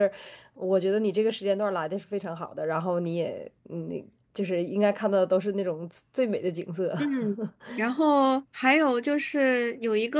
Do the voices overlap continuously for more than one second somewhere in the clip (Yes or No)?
No